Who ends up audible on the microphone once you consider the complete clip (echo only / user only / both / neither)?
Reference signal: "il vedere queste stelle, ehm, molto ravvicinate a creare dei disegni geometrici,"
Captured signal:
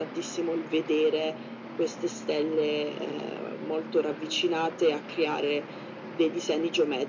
echo only